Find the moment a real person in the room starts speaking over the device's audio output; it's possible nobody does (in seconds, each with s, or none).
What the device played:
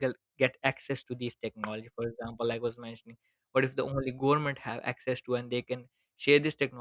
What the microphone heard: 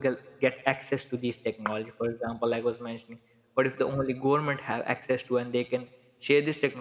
none